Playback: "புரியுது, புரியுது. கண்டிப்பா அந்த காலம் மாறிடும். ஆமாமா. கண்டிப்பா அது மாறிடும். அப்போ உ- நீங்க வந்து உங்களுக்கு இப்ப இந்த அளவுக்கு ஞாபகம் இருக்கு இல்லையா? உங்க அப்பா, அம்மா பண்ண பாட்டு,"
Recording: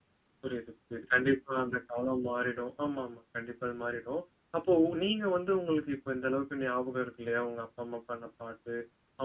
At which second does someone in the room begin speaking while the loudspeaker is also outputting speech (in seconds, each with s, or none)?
none